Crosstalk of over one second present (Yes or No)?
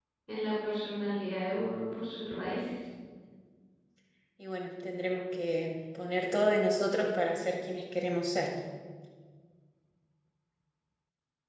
No